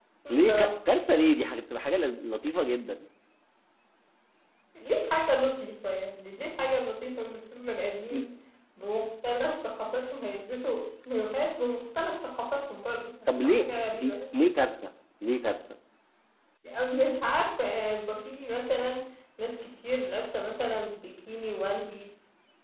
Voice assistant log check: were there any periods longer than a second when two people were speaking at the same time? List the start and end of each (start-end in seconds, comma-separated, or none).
none